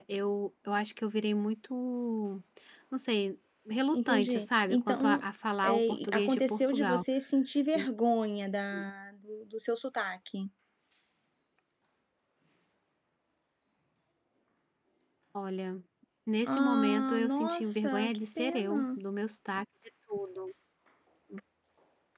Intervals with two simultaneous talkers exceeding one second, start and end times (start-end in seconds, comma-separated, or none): 3.9-5.2, 5.6-7.0, 16.4-19.0